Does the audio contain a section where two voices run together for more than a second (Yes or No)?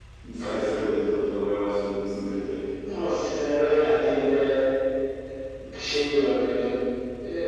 No